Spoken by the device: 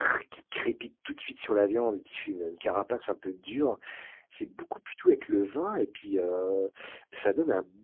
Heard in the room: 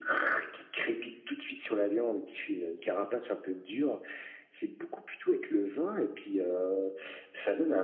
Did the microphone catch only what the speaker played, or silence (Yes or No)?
Yes